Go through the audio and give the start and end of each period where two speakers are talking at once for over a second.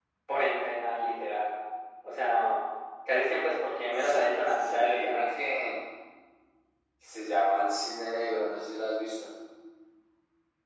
4.0-5.2

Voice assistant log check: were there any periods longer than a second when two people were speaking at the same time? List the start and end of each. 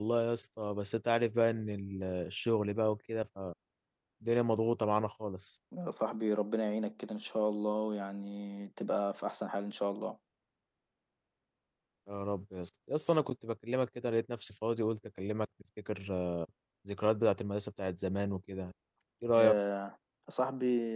none

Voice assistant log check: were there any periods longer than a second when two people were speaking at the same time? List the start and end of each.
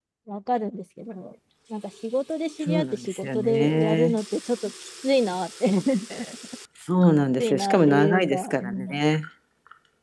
2.7-4.2, 7.4-9.0

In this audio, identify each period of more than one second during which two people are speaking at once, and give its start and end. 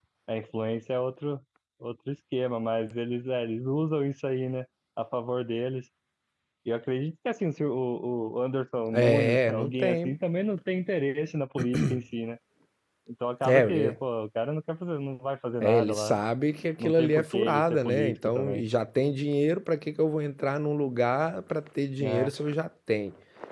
8.9-10.1, 16.8-18.6

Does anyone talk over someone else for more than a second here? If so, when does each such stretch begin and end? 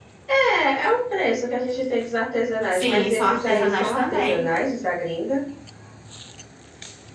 2.7-4.5

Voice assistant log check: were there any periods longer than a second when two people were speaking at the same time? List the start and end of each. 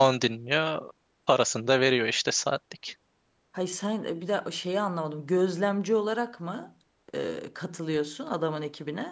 none

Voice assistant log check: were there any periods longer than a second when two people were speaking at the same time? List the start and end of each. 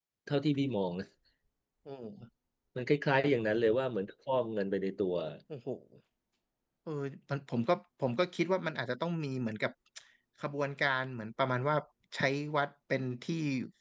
none

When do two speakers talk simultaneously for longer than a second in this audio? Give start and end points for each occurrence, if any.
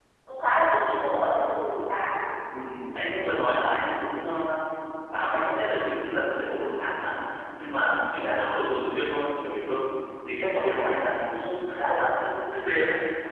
none

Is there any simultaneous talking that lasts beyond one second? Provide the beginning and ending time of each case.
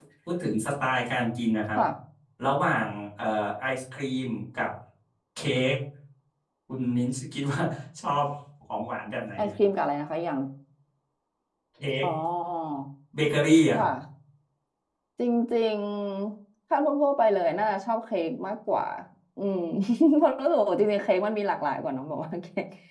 none

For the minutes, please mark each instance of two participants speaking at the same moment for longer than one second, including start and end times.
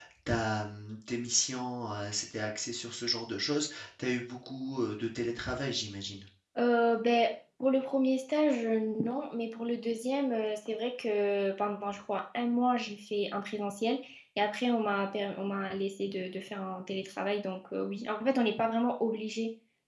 none

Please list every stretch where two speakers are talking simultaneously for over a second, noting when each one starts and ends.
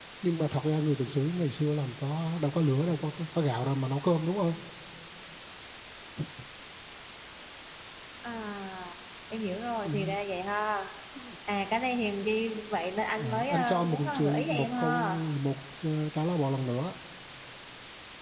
13.2-15.0

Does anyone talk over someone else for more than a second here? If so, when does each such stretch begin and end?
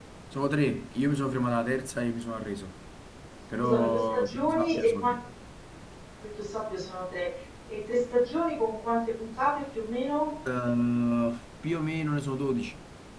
3.6-5.2

